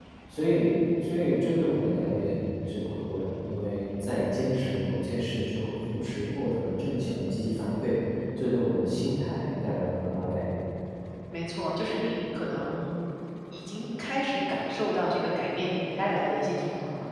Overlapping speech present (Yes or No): No